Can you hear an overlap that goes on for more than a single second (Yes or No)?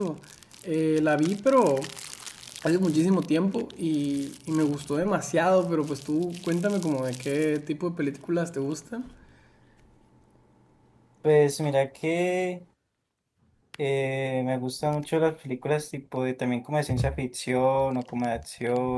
No